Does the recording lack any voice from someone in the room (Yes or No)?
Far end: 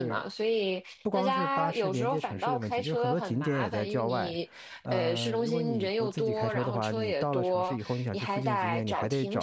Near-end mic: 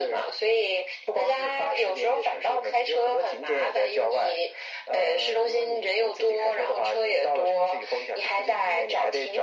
Yes